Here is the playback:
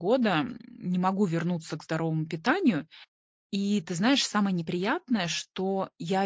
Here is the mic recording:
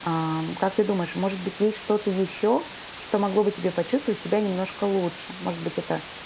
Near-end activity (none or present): present